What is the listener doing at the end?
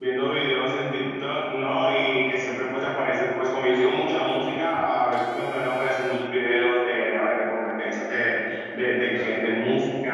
listening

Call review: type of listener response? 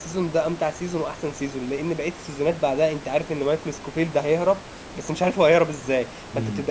listening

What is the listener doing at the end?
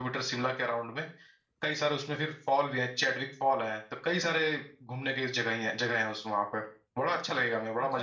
taking over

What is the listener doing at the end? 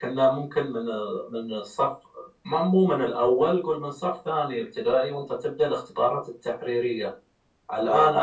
listening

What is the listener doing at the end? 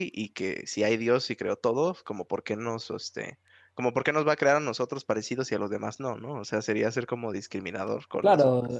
taking over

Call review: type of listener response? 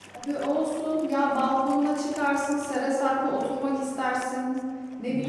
listening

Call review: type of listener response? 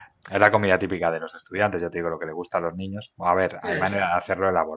listening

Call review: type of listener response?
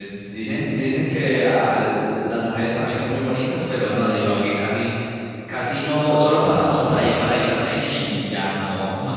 listening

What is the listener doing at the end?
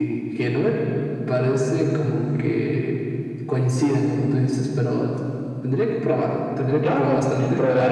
taking over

